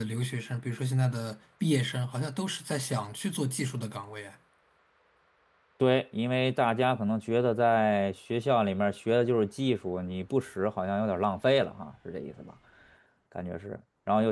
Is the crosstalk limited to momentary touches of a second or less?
Yes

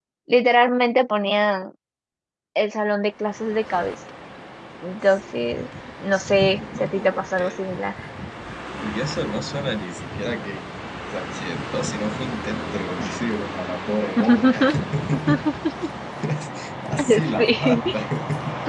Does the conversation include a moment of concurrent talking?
Yes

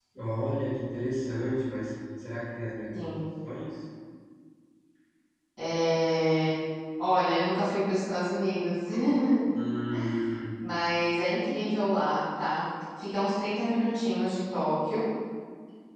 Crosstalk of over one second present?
No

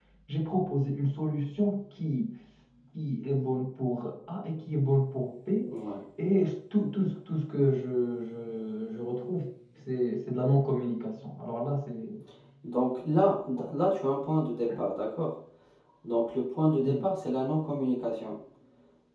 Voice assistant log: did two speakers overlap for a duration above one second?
No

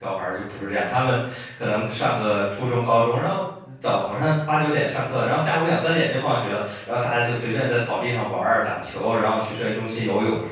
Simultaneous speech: No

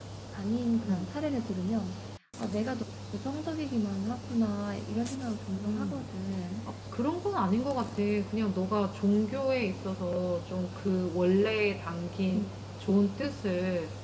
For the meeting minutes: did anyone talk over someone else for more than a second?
No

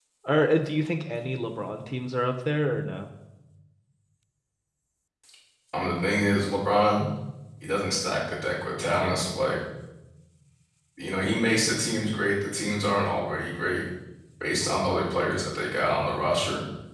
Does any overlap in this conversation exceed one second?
No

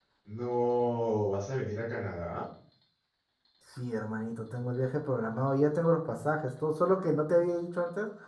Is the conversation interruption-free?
Yes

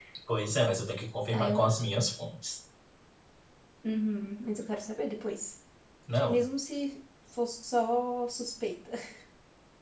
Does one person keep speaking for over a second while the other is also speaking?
No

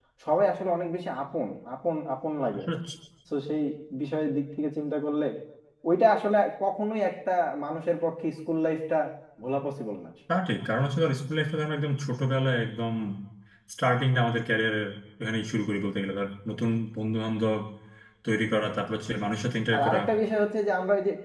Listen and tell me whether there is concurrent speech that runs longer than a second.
No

